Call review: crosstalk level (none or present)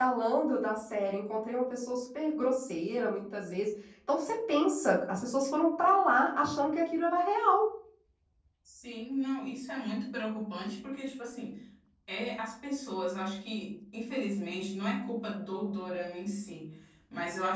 none